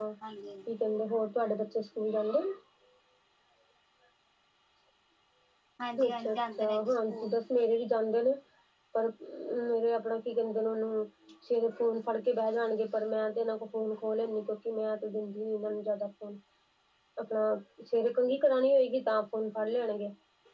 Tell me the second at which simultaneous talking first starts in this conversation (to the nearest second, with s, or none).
6 s